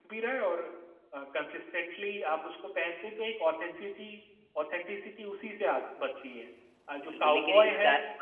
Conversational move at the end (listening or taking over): taking over